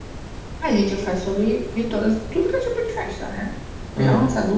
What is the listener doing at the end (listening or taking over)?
listening